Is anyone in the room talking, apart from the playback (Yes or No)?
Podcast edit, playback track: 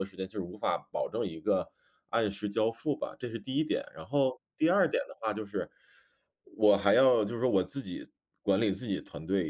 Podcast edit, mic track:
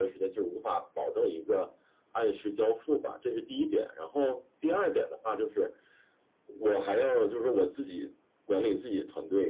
No